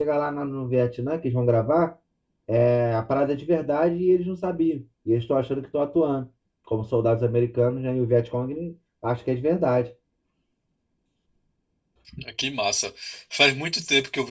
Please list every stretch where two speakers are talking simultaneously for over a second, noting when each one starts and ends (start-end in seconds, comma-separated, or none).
none